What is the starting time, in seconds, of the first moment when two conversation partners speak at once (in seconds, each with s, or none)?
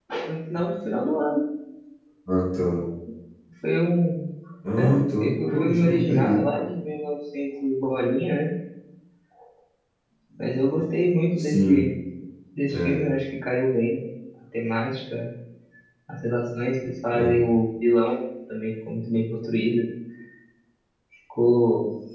4.8 s